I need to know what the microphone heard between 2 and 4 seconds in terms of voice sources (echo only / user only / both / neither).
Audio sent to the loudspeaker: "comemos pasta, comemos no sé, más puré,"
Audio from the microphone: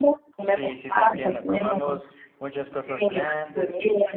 both